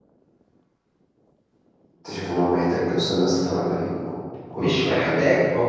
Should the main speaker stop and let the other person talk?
Yes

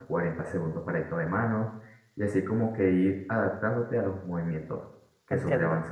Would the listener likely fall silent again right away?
No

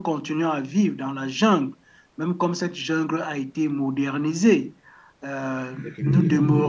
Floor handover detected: No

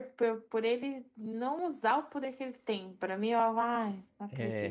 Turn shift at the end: Yes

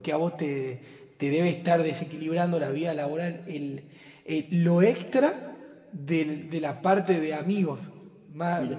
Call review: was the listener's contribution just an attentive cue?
Yes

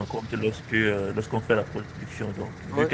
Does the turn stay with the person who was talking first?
Yes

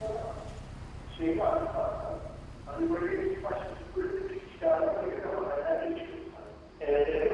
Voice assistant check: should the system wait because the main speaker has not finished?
No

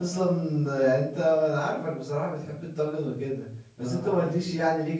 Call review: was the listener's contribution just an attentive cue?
Yes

